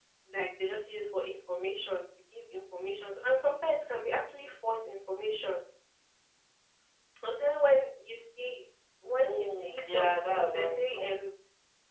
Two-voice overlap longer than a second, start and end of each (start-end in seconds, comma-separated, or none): 9.2-11.1